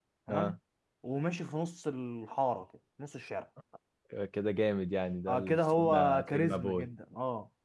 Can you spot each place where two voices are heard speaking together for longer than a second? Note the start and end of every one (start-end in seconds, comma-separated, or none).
5.3-6.9